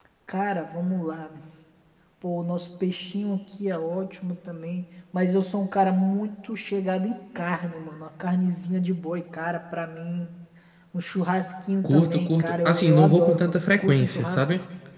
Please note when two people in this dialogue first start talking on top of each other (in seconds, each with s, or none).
11.8 s